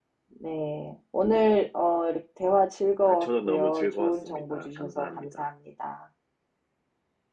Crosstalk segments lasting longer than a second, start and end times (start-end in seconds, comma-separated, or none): 3.0-5.5